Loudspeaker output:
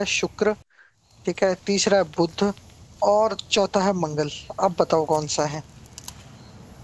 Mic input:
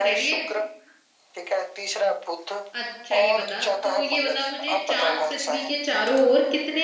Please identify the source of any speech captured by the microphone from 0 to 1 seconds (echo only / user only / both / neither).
both